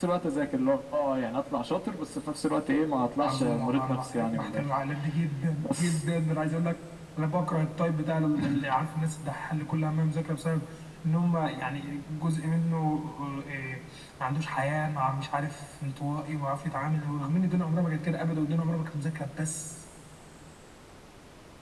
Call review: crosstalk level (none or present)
present